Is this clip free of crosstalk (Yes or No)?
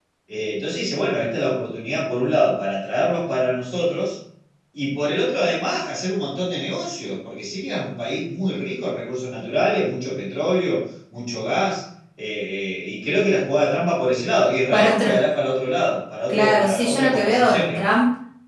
No